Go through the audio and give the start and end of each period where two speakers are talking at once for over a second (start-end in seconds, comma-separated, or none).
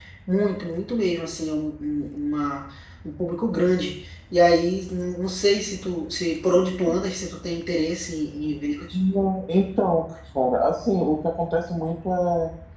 none